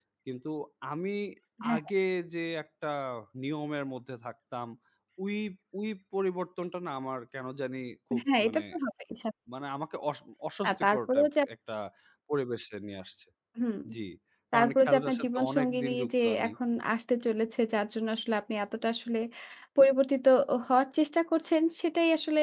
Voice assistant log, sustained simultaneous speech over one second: present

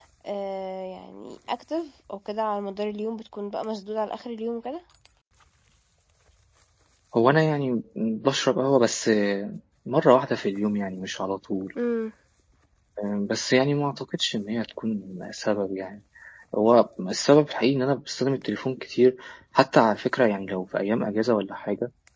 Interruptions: none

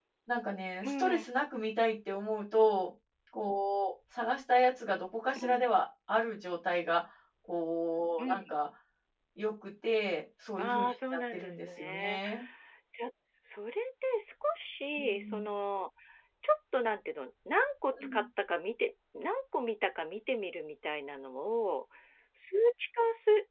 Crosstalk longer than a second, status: present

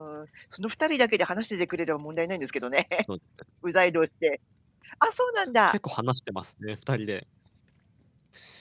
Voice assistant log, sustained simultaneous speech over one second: none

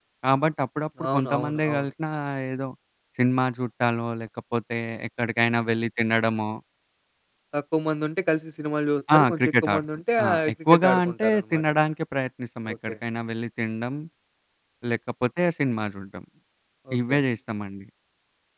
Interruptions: present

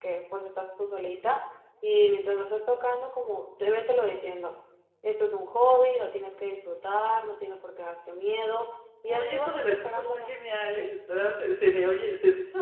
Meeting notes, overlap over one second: present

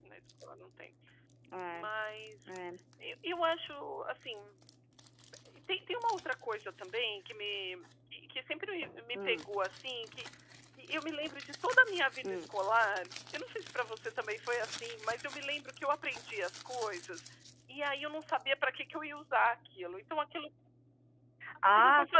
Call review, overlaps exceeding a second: none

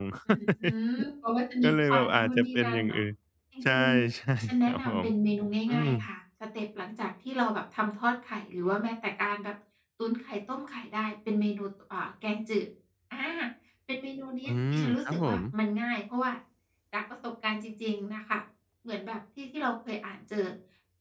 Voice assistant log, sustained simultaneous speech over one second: present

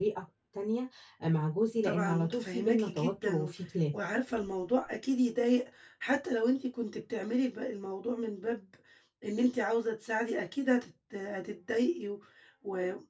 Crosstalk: present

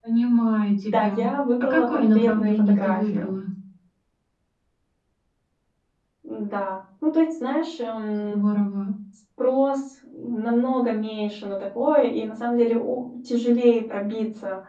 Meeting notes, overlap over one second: present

